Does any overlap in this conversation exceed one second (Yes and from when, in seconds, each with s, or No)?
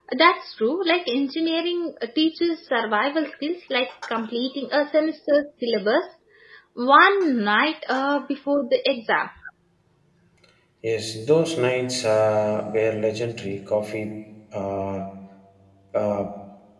No